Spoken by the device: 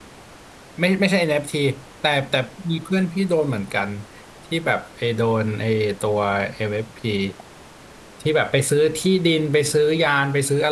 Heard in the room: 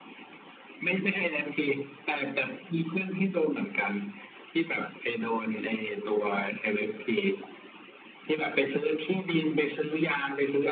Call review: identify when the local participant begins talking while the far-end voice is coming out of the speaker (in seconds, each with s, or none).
none